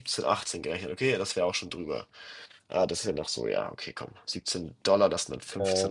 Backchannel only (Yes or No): Yes